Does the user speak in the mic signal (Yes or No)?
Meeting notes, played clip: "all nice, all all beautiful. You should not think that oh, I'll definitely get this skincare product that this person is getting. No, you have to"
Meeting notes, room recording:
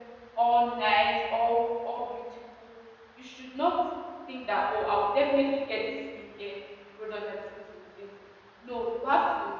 No